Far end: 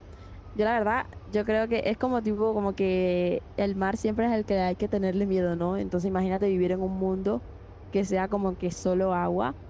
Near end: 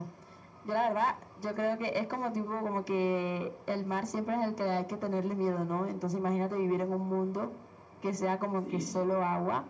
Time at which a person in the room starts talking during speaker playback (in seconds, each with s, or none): 8.5 s